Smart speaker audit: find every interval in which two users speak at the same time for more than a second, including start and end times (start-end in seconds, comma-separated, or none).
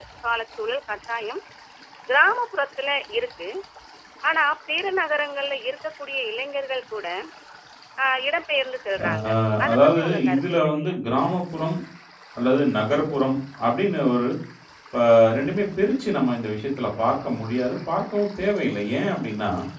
9.7-11.0